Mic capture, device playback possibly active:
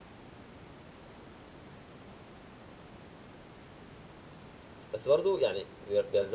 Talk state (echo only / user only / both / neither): user only